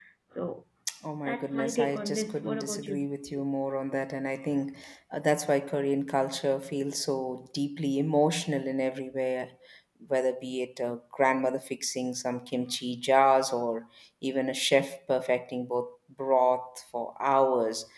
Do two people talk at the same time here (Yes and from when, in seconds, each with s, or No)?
Yes, from 1.2 s